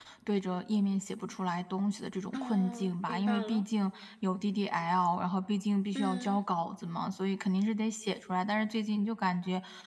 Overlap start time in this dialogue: 2.3 s

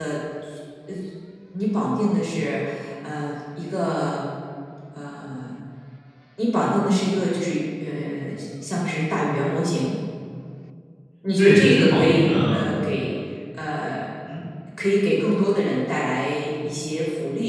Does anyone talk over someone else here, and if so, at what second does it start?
11.4 s

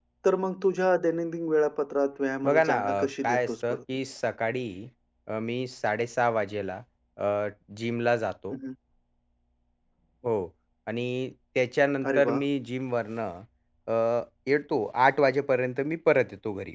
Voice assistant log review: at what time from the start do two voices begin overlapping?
2.4 s

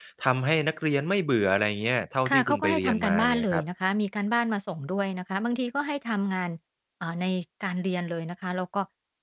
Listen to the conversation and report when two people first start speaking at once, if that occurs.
2.2 s

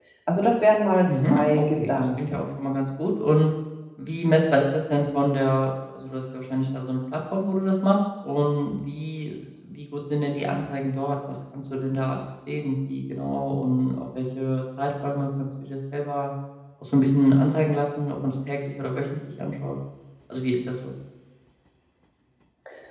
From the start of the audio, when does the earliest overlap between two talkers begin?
1.0 s

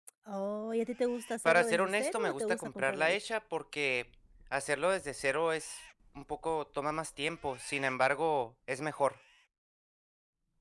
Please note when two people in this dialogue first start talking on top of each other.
1.4 s

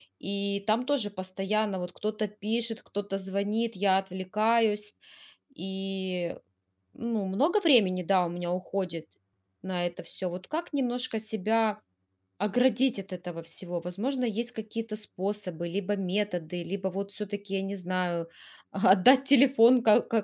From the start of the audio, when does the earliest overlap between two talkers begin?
none

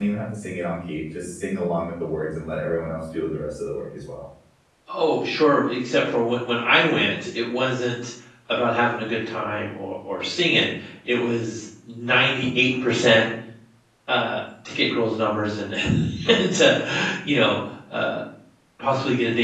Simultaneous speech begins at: none

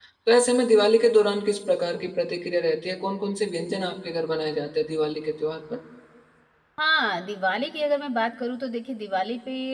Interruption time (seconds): none

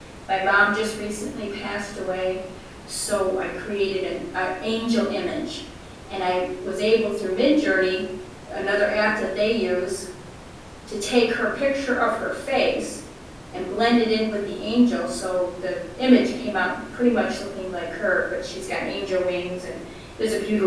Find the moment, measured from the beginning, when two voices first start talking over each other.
none

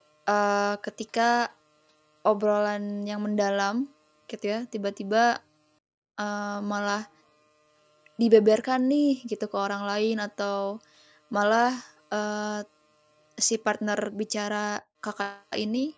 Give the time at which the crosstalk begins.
none

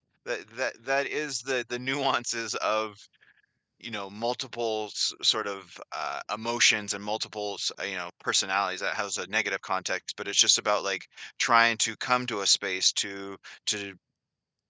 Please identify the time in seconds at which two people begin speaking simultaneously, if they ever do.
none

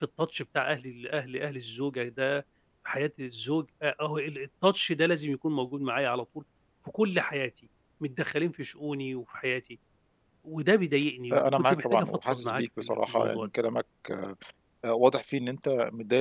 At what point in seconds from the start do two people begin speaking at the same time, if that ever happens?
11.3 s

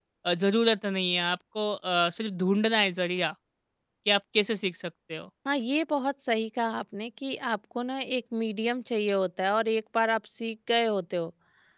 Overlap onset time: none

